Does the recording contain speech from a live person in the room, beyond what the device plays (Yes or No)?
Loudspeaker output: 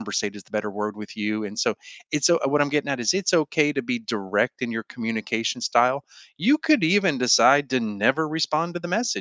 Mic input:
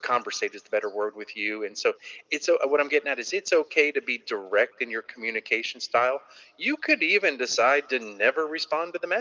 No